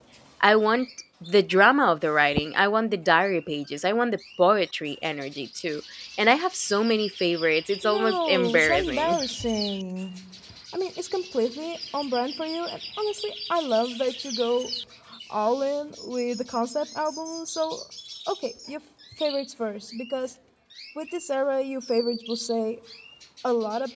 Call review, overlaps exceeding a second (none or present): present